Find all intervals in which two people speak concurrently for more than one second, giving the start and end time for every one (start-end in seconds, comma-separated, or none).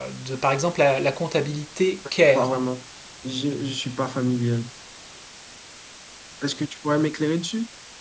none